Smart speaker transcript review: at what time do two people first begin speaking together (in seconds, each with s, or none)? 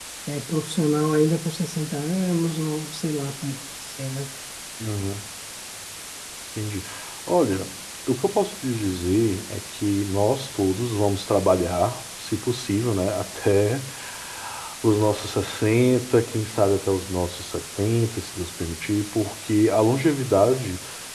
none